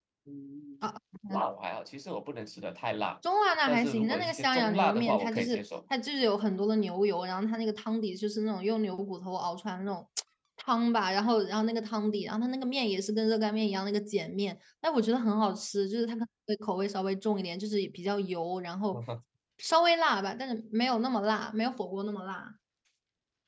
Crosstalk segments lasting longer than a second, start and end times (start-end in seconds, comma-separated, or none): 3.7-5.6